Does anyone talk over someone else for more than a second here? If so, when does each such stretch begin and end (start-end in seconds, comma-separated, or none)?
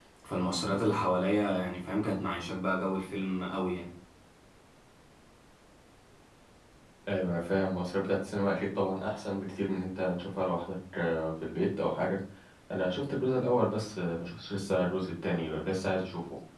none